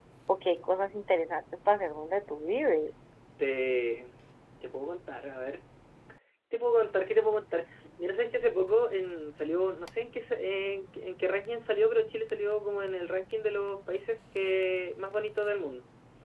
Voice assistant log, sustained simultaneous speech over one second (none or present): none